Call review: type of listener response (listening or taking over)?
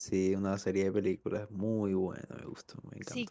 taking over